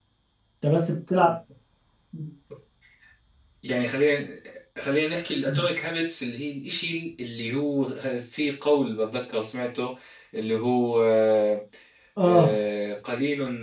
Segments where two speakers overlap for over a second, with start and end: none

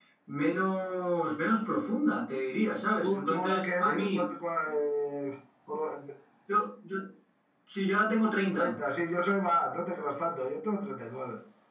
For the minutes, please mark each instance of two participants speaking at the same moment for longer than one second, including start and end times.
3.0-4.2

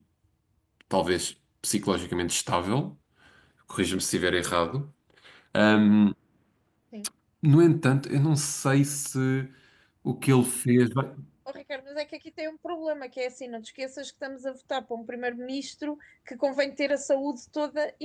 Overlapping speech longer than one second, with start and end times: none

